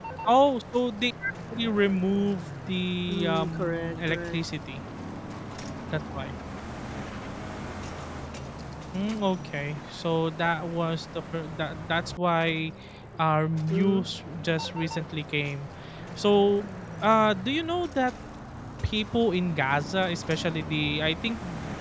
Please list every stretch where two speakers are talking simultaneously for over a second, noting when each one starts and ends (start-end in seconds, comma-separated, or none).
3.1-4.4